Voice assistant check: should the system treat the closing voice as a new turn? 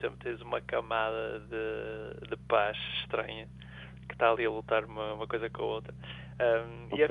No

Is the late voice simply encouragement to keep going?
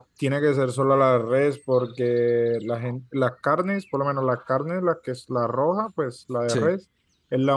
Yes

